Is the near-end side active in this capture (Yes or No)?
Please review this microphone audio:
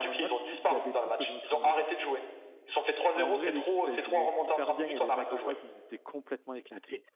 Yes